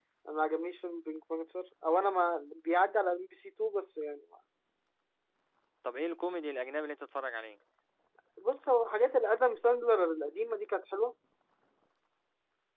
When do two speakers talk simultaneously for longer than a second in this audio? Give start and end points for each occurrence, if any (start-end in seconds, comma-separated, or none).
none